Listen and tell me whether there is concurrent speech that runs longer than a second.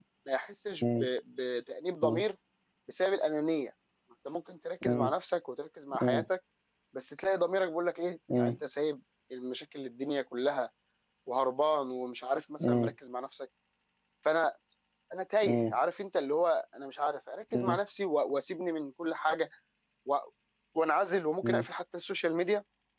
No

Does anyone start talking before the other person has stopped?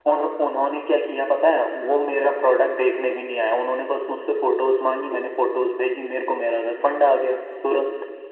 No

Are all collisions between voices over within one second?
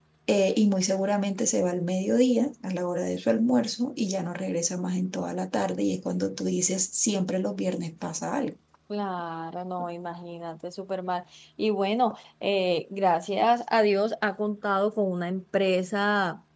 Yes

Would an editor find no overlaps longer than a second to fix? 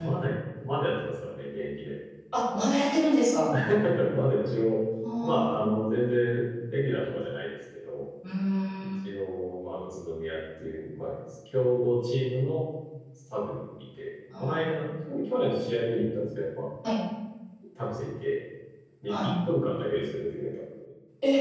Yes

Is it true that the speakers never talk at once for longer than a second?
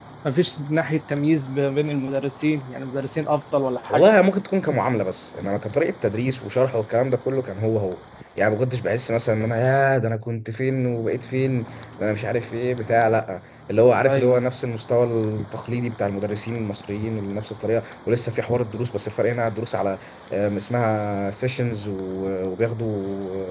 Yes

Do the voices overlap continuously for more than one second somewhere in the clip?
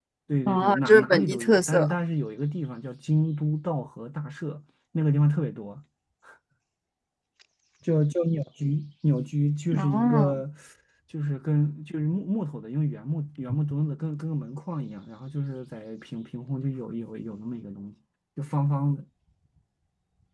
Yes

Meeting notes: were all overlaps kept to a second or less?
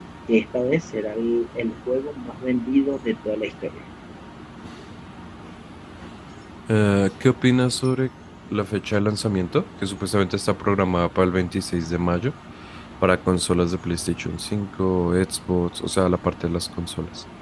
Yes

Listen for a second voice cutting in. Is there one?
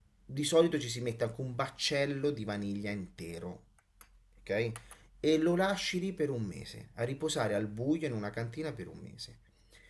No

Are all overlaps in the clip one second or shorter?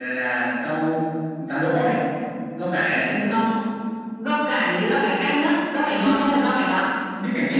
Yes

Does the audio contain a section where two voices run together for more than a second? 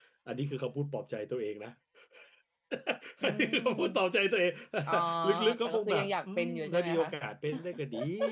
Yes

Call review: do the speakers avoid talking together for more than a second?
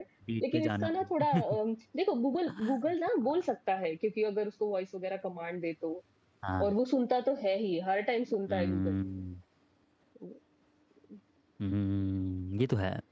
Yes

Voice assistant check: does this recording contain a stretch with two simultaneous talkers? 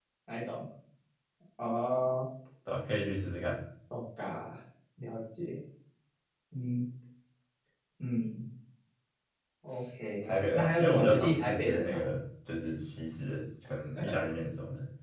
Yes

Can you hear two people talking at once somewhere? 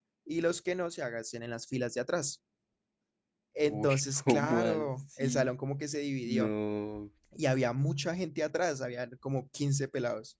Yes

